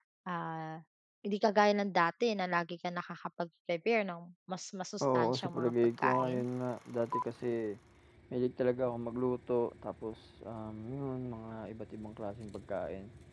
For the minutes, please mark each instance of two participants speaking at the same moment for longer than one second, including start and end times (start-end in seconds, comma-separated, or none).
5.0-6.5